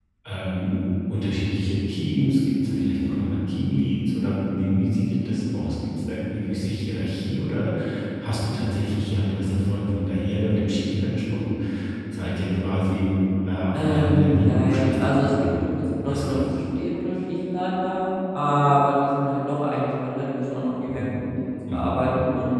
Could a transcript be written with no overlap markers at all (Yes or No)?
No